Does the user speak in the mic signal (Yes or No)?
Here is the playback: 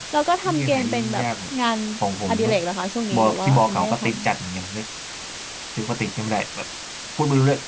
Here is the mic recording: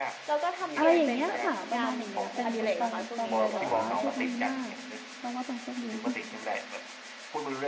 Yes